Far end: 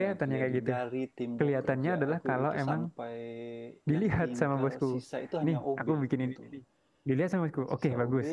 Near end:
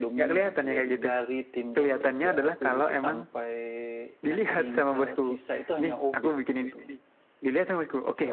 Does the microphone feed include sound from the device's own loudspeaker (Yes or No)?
Yes